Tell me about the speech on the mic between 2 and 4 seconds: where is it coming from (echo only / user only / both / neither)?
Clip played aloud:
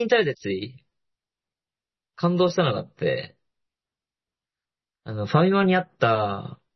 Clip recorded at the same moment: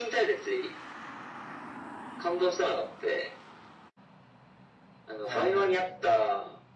echo only